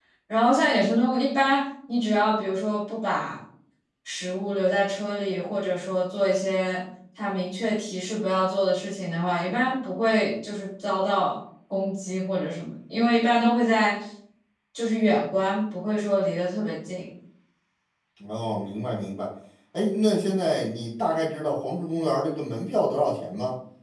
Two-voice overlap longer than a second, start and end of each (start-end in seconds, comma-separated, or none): none